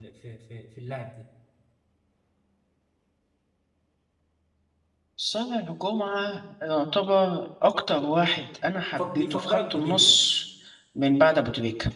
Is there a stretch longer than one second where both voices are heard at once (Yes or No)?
Yes